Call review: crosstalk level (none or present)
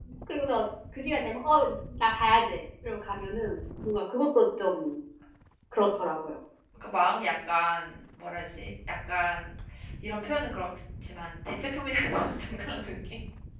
none